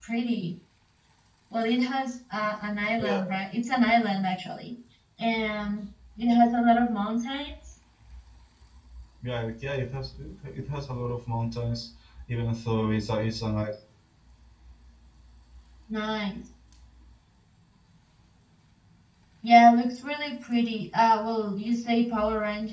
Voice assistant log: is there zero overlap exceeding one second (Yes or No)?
Yes